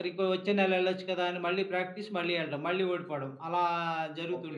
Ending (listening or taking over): taking over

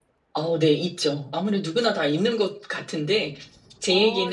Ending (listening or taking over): listening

